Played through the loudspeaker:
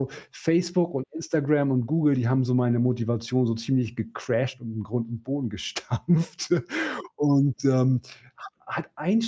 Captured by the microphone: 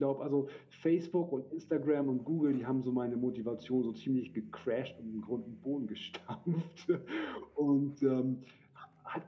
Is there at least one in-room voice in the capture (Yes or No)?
No